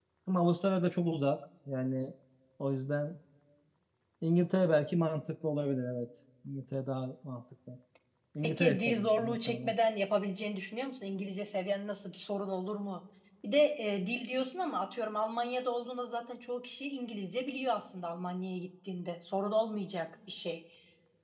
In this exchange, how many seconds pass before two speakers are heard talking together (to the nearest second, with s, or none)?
8 s